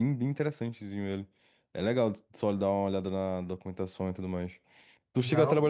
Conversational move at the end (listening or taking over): listening